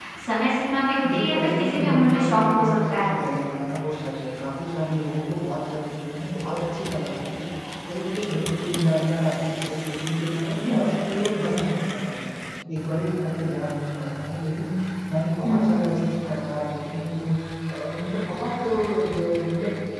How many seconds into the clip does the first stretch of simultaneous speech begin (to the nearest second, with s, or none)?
1 s